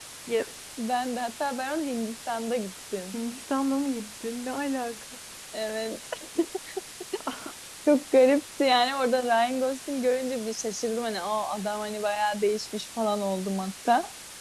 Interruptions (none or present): none